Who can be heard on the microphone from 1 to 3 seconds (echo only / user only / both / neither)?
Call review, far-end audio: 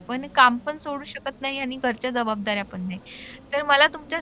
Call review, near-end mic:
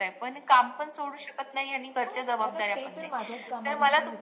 both